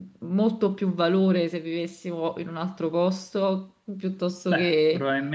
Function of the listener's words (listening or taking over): taking over